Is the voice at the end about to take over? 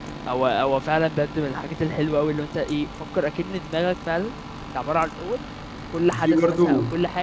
No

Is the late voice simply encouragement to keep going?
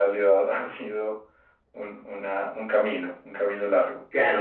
No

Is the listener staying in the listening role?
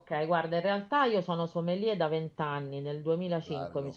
Yes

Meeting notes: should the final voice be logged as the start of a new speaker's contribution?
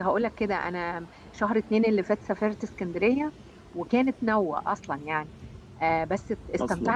No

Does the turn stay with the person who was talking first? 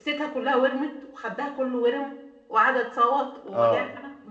No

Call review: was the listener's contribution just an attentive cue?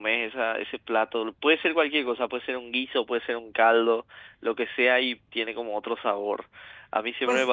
No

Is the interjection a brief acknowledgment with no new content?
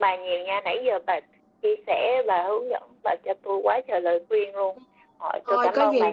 No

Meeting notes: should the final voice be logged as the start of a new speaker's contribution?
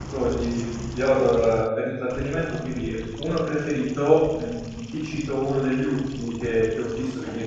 No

